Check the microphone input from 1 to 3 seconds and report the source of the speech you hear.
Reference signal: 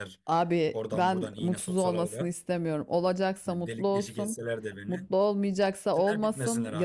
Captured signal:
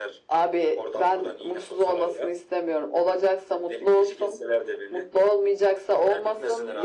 echo only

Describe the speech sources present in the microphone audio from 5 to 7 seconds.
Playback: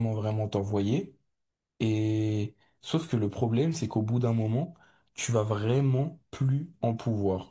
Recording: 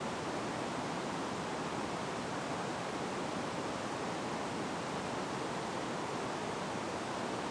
neither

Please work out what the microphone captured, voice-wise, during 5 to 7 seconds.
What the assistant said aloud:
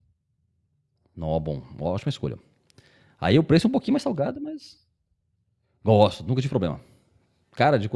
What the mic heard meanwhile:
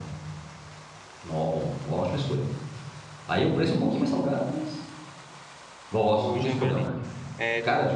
both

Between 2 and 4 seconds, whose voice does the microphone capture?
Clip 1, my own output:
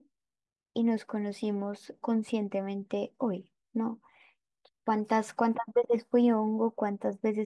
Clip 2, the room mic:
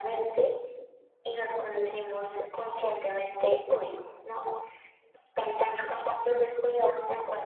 echo only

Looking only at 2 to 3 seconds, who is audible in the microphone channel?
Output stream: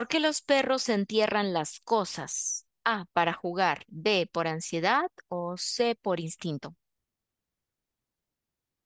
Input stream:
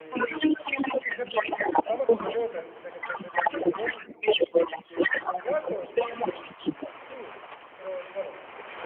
both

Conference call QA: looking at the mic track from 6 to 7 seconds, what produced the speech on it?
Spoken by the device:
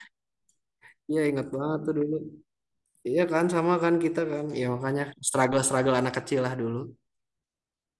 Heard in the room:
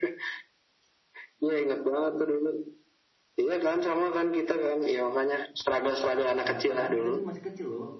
both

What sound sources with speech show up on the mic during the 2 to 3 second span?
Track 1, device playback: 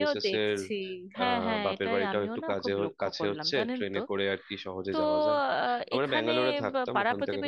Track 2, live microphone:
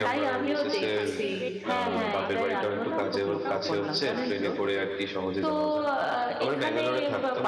both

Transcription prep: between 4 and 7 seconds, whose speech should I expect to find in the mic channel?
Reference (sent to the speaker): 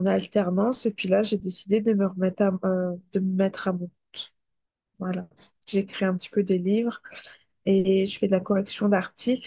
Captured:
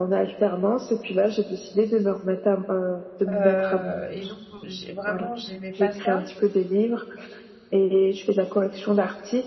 both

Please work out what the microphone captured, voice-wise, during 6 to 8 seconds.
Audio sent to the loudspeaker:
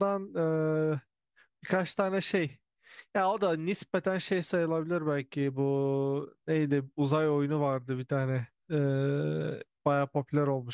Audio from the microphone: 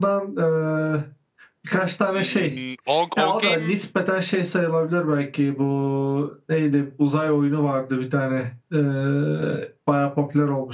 echo only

